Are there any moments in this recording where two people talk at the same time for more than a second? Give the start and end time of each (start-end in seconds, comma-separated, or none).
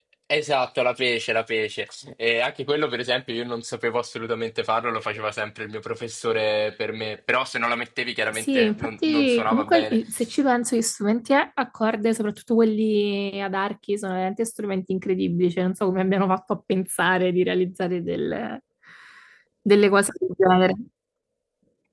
8.3-10.0